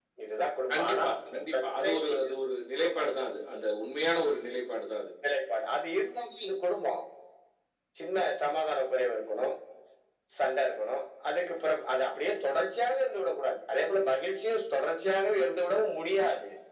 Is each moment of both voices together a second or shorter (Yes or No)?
No